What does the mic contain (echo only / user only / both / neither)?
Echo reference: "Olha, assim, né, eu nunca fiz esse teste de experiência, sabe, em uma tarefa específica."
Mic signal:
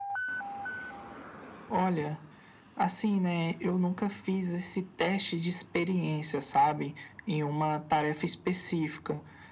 echo only